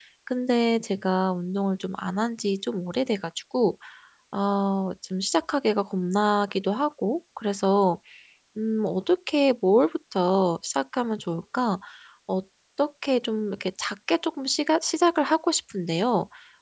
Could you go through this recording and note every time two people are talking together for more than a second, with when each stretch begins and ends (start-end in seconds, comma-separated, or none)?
none